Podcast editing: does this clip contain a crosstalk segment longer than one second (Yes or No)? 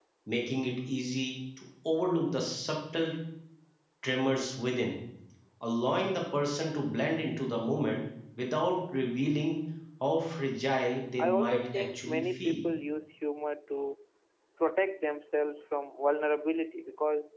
Yes